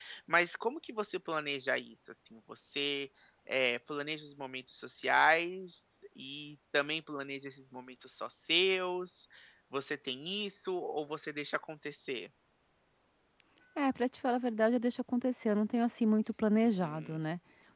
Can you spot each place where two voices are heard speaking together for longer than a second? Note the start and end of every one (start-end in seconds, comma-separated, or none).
none